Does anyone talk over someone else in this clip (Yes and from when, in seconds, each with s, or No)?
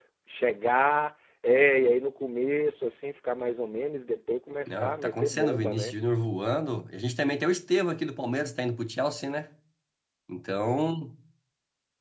Yes, from 4.7 s